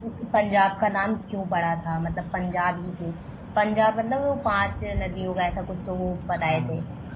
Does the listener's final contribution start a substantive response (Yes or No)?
Yes